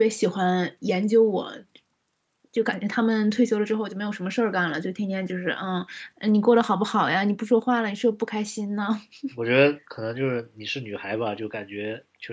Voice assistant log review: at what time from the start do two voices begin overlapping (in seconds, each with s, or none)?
none